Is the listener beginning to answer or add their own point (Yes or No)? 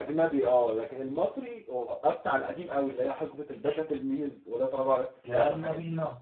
Yes